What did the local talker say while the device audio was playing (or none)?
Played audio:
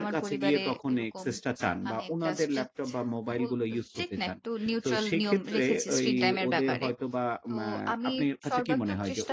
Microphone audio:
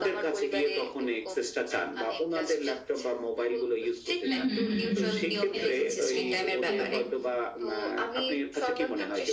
হুম, হুম, হুম, হুম। সেটাই। হ্যাঁ, একদম।